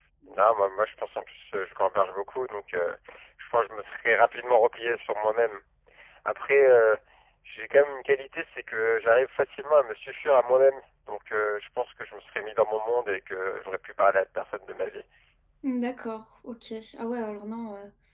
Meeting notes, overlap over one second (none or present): none